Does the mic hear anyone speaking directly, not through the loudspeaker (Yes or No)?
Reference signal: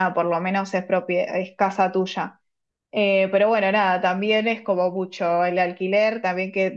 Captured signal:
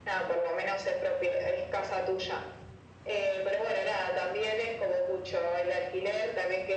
No